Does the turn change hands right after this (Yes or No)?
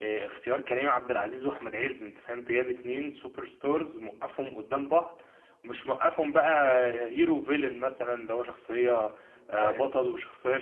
No